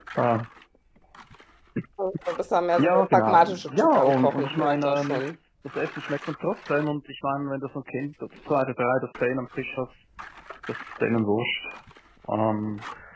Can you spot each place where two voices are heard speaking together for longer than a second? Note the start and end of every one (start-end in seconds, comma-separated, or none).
2.8-5.2